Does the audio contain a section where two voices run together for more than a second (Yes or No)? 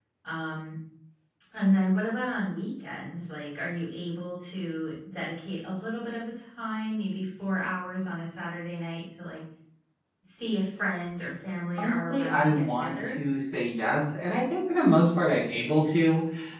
Yes